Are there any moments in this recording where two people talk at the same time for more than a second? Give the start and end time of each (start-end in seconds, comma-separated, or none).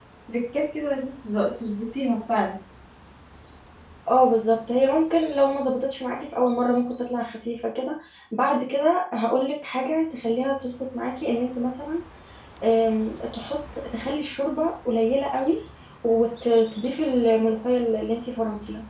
none